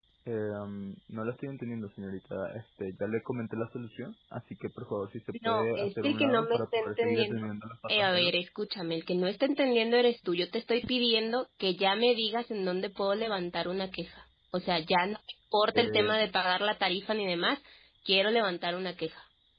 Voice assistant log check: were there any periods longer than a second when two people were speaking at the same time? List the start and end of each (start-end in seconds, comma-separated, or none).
5.5-7.5